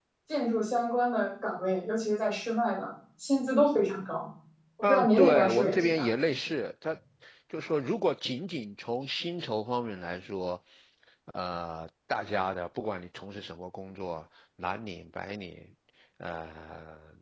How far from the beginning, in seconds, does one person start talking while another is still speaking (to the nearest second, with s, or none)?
5 s